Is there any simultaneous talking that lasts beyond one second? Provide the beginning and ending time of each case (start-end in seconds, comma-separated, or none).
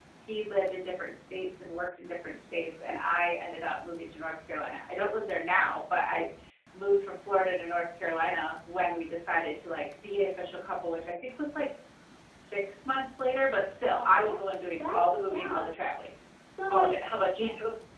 13.8-15.8